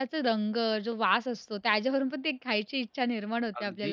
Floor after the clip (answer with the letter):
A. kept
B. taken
B